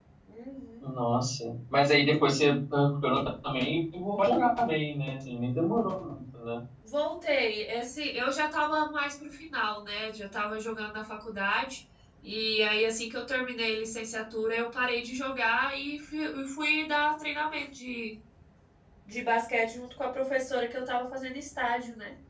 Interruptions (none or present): none